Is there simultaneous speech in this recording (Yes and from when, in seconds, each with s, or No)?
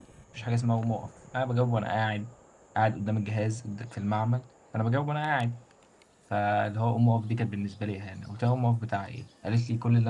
No